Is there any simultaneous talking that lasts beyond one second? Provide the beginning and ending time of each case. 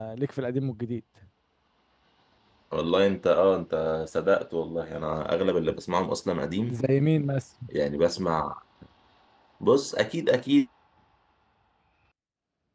none

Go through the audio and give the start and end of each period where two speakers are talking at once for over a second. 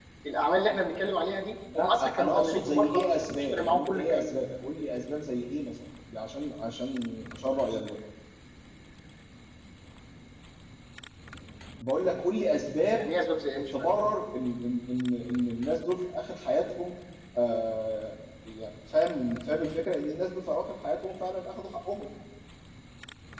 1.8-4.3

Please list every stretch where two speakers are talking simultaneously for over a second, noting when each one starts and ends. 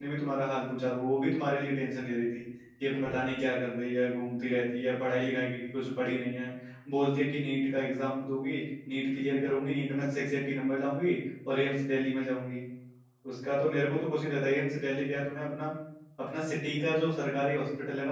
none

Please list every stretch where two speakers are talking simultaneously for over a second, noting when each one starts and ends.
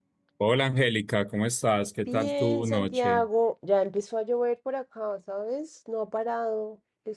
2.1-3.3

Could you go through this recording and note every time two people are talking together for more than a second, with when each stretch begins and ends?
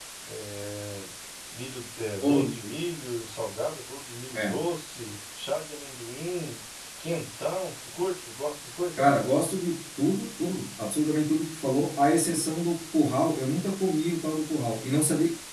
none

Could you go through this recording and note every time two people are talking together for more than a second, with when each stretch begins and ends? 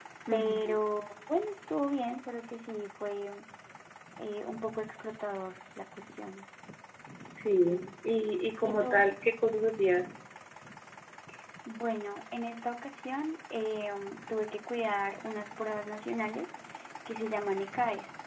none

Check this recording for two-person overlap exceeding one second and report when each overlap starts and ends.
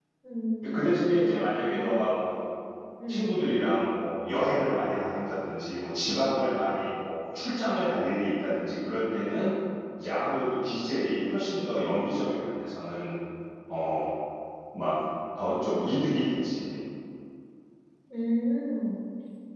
0.6-2.1

